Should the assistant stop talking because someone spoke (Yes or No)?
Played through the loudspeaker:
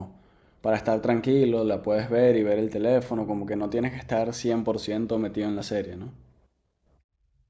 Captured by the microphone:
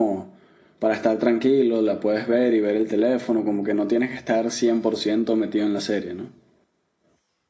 No